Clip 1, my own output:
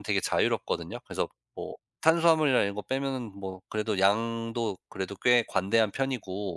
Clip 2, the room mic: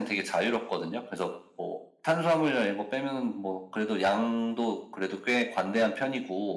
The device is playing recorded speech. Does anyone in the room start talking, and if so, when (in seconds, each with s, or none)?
none